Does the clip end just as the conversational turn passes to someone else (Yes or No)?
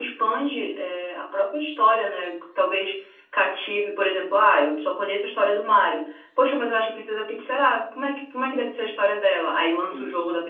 No